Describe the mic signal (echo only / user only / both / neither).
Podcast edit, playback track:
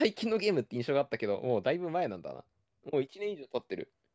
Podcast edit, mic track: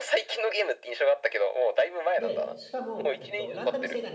both